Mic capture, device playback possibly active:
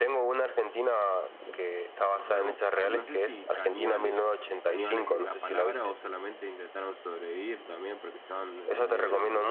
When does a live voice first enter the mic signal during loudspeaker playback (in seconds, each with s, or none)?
2.1 s